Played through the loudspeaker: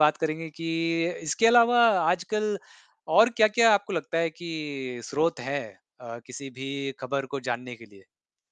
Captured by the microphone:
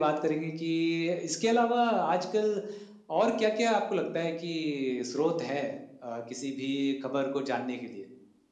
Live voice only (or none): none